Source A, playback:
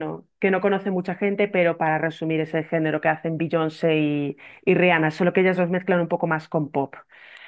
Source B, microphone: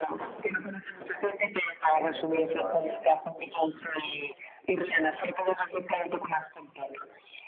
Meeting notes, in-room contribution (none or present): present